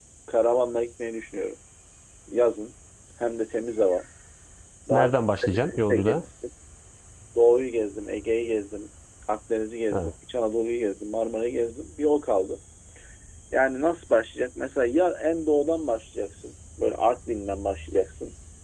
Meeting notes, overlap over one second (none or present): present